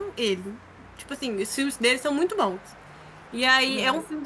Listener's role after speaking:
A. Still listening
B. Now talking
A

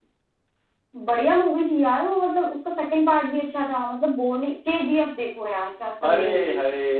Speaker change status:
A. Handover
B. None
A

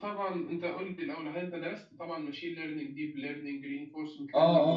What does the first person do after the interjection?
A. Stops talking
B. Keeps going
A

